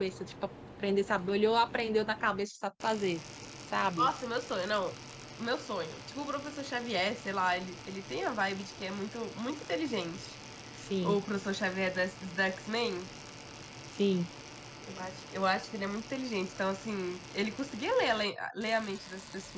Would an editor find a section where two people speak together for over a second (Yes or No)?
No